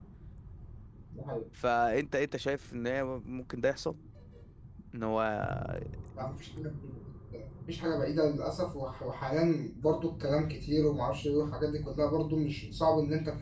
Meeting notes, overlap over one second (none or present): none